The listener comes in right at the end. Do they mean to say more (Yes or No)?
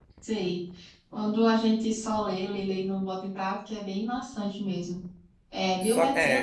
No